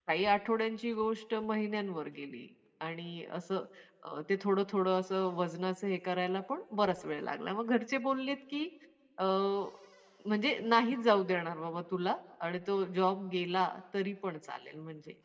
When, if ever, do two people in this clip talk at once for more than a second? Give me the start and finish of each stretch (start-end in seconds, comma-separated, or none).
none